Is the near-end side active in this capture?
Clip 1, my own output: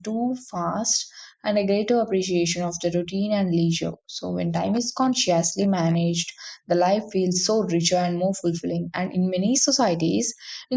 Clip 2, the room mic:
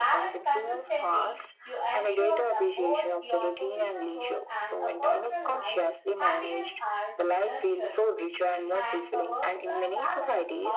Yes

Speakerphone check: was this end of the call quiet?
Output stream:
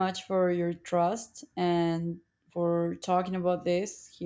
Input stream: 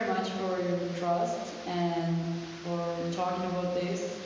Yes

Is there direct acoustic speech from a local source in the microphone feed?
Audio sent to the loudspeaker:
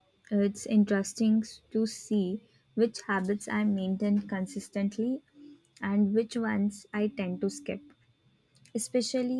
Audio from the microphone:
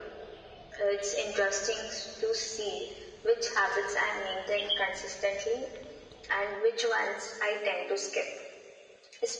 No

